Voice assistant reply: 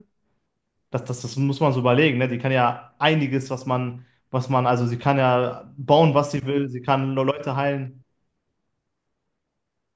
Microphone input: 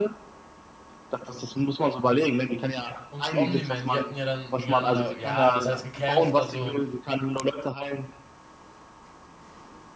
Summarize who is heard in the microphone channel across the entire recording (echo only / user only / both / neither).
both